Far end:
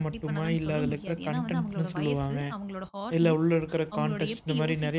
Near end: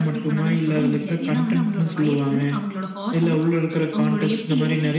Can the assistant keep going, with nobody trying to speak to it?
Yes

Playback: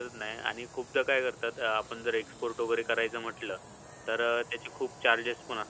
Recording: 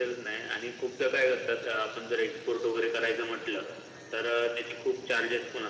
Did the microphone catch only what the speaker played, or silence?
Yes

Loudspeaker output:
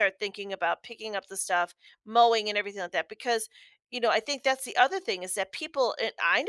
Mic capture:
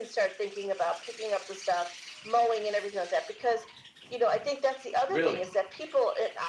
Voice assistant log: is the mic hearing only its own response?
No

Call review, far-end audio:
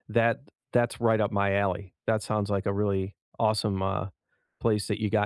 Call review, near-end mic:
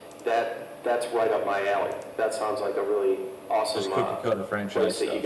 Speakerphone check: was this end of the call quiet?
No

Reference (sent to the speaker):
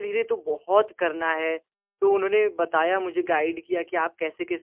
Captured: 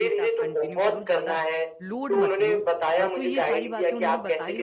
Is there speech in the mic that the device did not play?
Yes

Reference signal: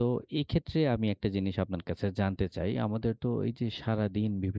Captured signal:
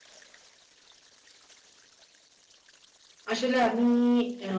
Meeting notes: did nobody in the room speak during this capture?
No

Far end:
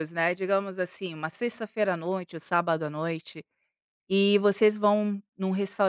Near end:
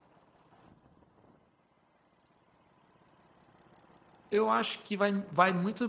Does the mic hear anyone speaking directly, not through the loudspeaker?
Yes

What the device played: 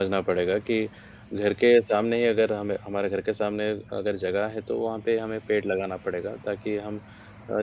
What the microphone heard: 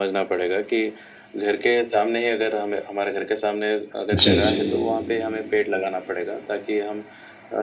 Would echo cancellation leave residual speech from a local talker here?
Yes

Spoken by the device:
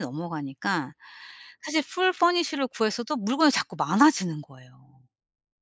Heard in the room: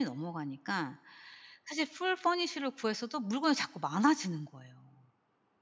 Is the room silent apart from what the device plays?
Yes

